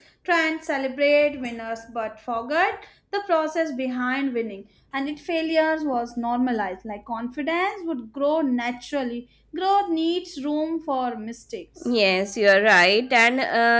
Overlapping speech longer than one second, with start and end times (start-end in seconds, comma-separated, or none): none